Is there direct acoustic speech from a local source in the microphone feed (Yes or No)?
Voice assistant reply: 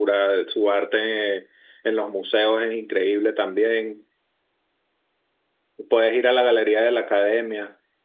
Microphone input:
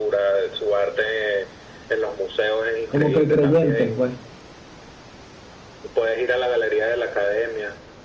Yes